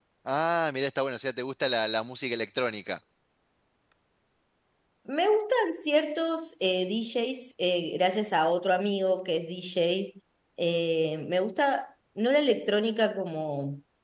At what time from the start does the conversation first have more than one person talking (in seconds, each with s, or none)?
none